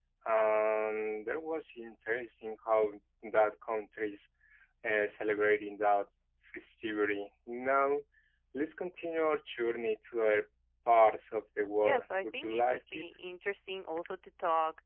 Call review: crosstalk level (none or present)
present